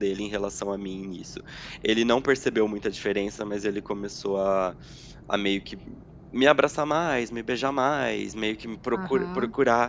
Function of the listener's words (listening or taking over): taking over